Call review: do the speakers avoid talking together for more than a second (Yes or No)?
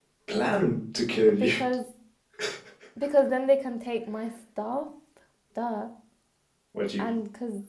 Yes